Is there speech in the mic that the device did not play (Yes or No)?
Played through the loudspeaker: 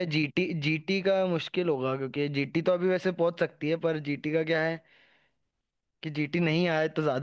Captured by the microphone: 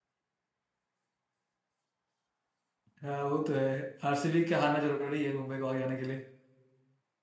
Yes